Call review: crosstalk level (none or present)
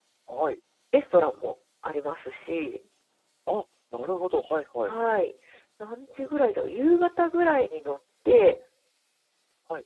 none